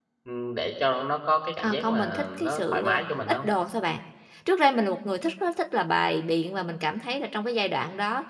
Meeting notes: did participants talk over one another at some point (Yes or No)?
Yes